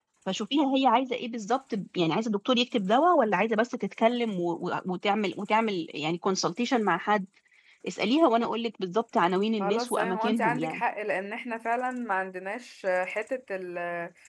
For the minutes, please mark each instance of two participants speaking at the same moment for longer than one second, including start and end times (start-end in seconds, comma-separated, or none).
9.6-10.8